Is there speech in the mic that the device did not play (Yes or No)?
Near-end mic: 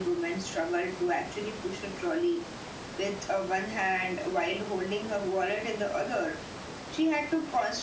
No